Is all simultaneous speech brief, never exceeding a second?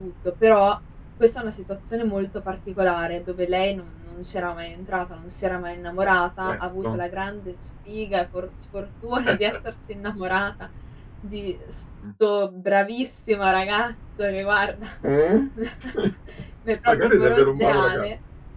No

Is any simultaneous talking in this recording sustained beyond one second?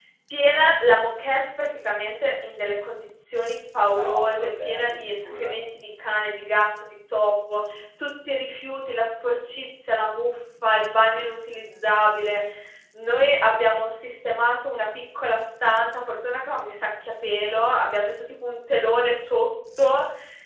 Yes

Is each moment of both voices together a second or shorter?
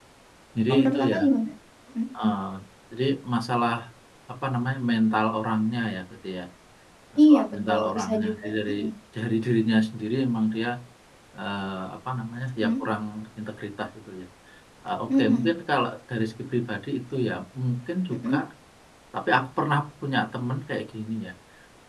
No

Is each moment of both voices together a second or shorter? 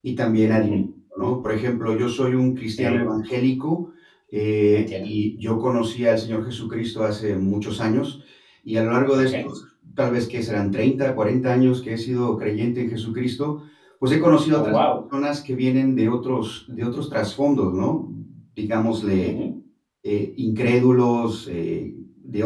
Yes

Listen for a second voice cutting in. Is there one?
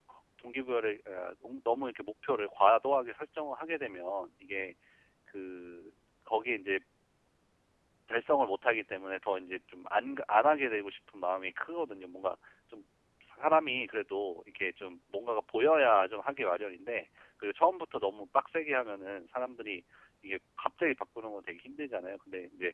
No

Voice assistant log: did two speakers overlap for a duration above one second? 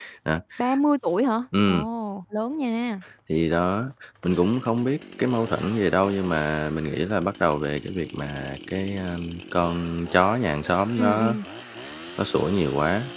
No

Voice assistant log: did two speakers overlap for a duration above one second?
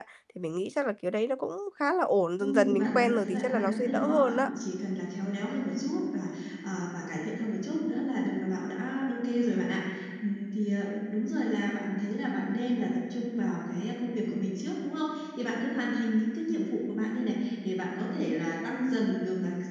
Yes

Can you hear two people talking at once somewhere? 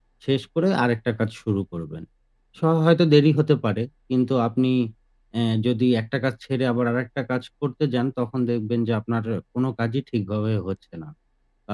No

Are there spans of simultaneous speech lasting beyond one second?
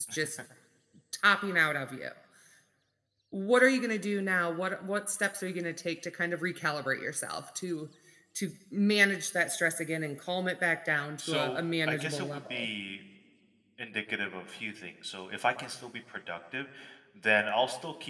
Yes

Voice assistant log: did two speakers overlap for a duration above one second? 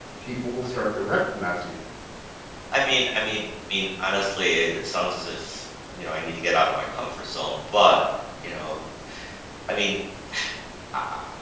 No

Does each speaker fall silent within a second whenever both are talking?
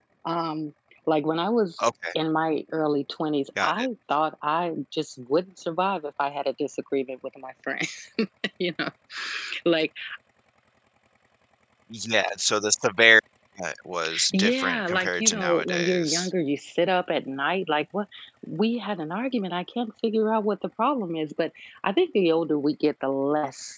No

